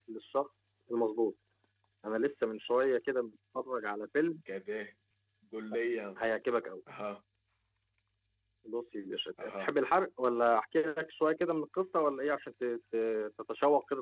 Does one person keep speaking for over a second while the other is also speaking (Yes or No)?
No